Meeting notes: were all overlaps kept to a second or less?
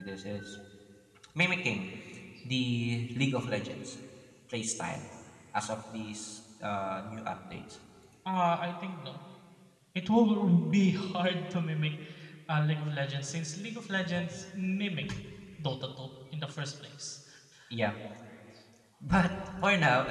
Yes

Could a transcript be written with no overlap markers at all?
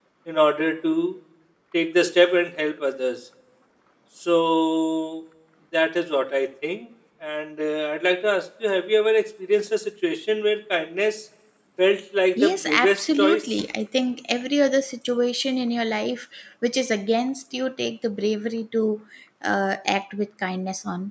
No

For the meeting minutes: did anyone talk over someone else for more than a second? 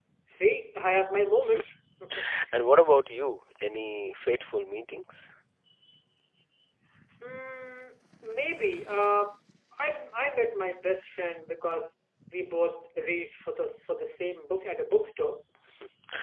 No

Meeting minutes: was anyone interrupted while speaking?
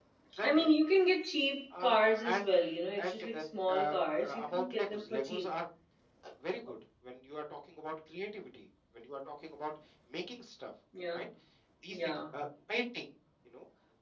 Yes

